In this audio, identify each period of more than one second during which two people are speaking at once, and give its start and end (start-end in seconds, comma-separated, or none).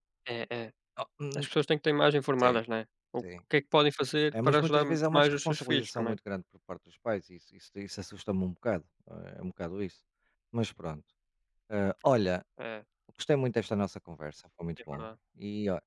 4.5-6.2